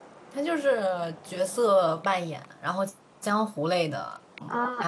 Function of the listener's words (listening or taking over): taking over